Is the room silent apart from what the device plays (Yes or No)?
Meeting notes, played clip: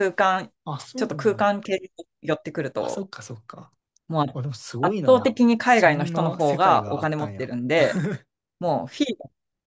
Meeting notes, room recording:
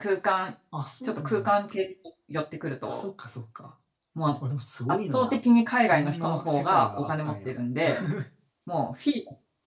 Yes